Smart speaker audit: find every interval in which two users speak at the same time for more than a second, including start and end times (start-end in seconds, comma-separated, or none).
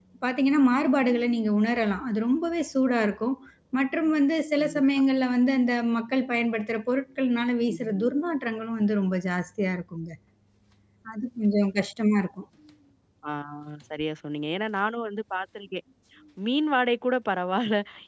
none